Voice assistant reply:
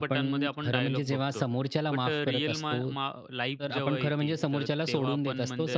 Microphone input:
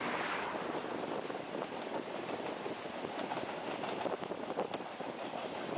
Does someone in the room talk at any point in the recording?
No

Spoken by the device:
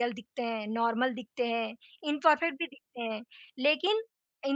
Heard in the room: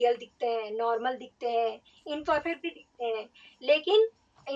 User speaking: No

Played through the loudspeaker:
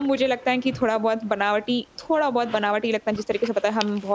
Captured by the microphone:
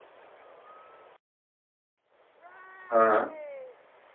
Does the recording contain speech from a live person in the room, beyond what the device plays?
Yes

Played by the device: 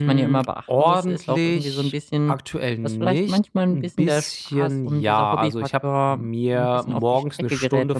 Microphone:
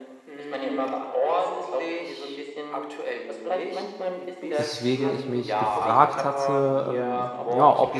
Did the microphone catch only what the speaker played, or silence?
No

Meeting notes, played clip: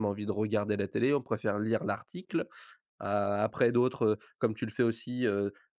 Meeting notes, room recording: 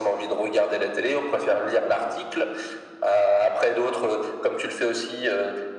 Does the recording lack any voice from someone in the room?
Yes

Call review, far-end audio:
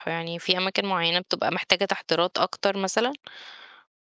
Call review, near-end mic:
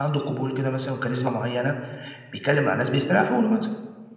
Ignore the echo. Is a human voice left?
Yes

